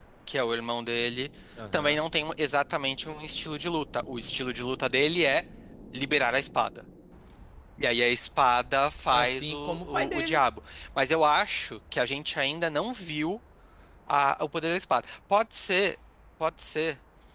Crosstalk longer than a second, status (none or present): present